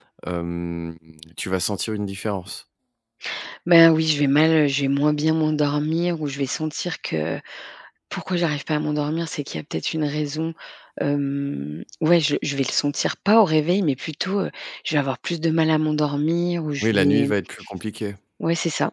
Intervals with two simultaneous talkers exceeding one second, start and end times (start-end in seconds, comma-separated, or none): none